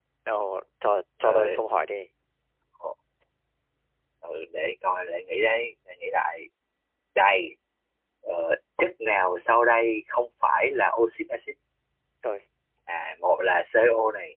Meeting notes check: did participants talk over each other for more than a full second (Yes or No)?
No